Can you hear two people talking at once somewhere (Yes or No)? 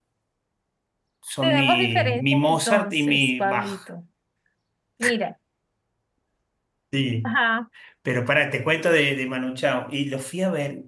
Yes